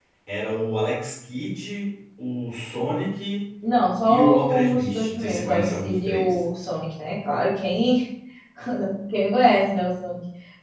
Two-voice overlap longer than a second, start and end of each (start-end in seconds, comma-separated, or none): 4.0-6.4